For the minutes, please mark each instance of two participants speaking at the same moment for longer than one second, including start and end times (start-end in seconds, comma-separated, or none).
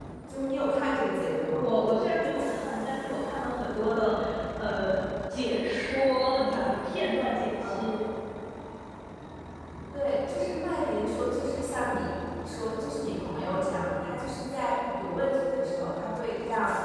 none